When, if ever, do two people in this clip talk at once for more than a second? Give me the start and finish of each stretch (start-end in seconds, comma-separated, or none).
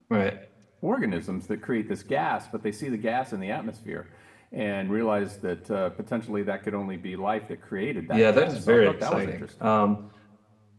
8.1-9.7